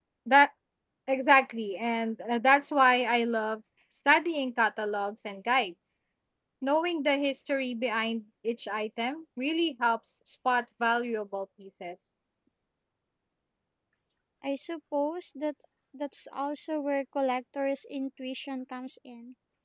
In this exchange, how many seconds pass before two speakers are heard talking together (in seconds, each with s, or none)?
none